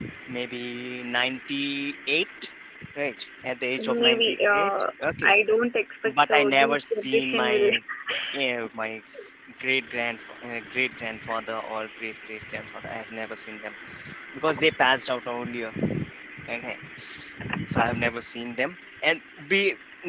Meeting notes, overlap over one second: present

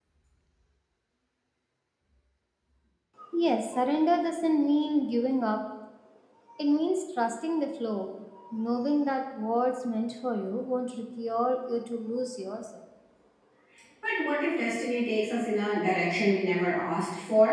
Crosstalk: none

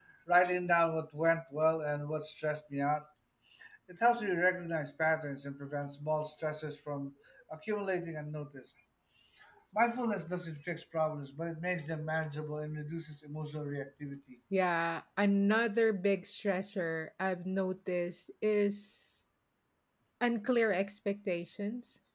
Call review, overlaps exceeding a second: none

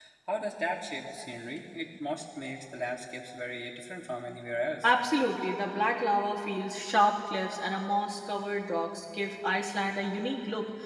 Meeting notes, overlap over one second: none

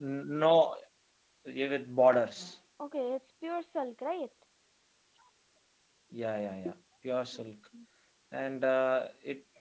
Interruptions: none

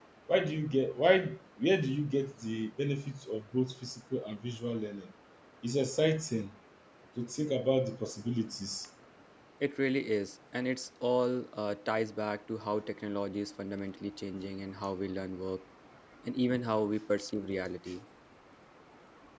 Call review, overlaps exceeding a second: none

